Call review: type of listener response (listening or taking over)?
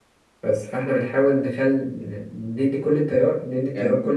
listening